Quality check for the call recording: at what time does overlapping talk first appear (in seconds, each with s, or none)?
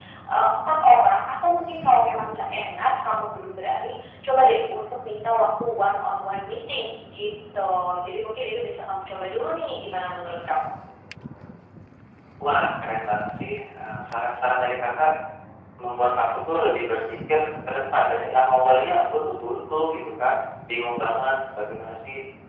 none